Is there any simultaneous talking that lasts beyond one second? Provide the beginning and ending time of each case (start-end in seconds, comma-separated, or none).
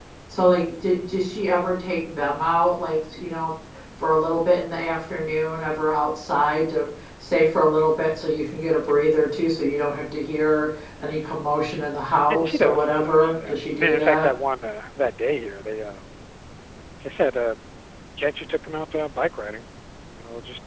12.3-14.3